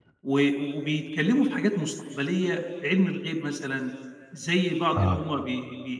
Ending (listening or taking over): listening